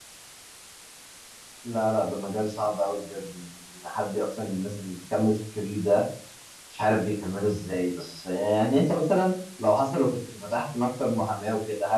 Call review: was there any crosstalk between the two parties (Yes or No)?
No